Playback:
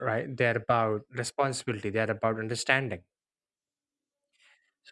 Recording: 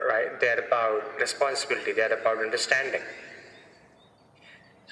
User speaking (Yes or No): No